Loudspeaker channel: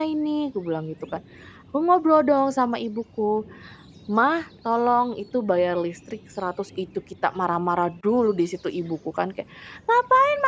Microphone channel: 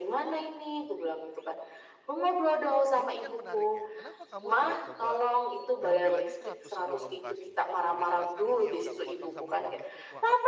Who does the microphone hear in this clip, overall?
both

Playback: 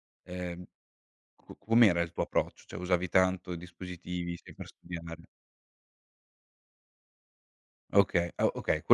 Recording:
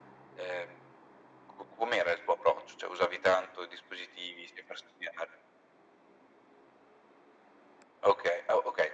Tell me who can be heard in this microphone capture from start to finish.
echo only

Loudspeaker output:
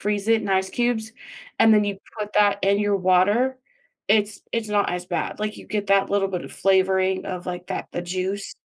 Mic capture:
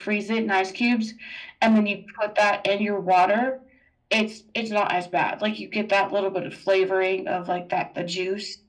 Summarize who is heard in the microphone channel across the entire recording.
echo only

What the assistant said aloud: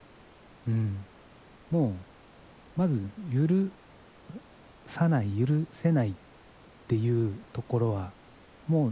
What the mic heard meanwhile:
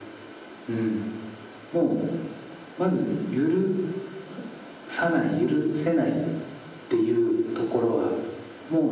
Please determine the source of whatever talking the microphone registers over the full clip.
echo only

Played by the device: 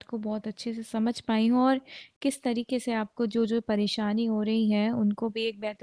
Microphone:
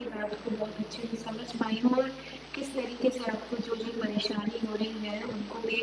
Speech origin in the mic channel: echo only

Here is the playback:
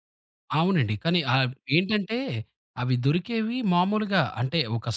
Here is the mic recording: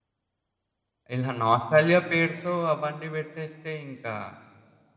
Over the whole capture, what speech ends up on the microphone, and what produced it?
user only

